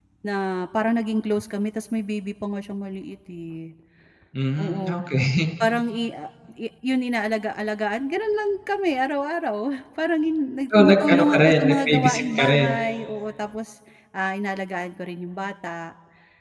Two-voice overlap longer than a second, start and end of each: 10.8-12.7

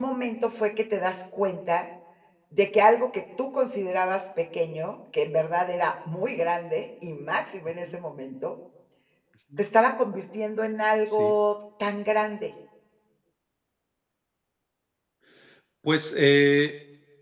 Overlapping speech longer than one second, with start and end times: none

